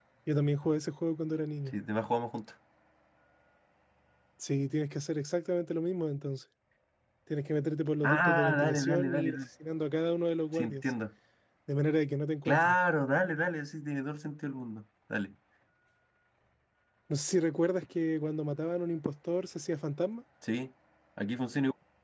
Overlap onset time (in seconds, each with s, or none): 8.0 s